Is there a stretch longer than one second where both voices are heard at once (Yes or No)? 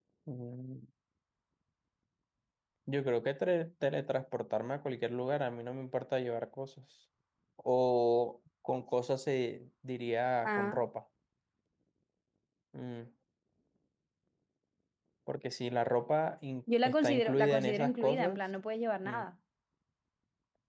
Yes